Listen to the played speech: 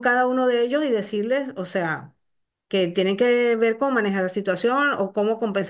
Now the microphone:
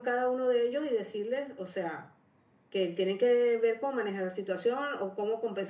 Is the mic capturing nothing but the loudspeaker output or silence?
Yes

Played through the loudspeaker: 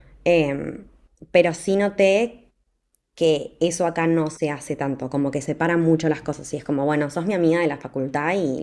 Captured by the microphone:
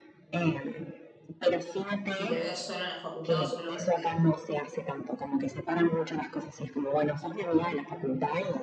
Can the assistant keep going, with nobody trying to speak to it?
No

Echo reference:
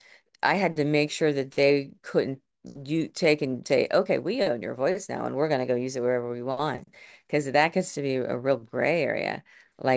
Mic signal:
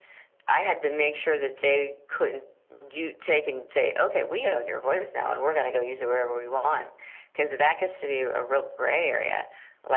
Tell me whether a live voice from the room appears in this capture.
No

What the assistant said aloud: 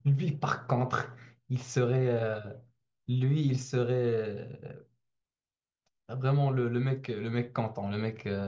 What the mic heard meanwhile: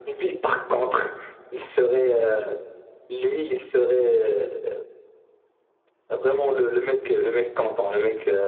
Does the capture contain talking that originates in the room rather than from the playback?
No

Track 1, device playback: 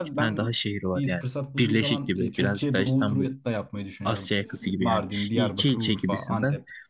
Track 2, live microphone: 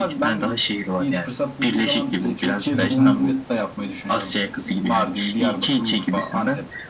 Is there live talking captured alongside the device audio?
Yes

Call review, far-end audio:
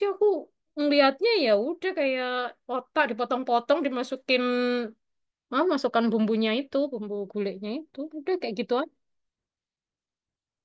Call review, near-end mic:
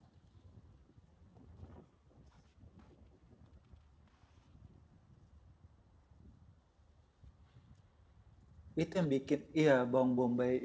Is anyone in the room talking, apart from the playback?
Yes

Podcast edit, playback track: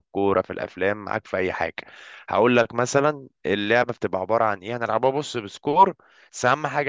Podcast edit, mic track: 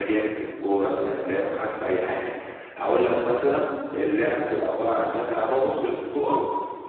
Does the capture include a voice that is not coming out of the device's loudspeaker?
No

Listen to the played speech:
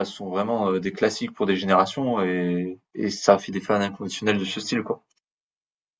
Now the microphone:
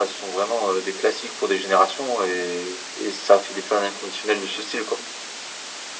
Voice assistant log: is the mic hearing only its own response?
Yes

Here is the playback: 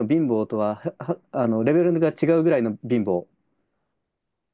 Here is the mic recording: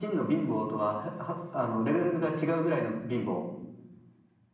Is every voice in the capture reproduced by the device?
Yes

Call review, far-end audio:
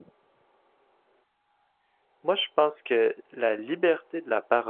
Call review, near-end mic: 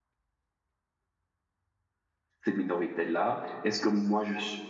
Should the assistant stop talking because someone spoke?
Yes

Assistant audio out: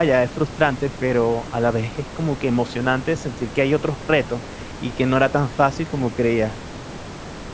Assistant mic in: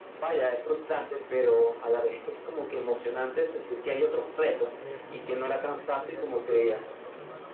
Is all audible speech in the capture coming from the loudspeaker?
No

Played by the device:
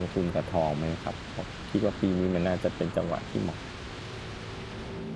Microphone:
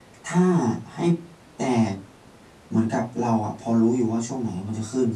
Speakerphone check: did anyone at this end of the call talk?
Yes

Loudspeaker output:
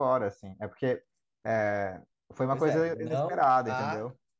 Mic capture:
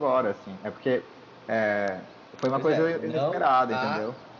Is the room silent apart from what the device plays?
Yes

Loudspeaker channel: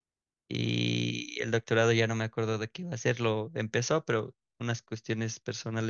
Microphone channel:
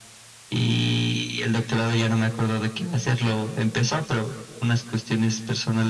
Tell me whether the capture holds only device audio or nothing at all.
Yes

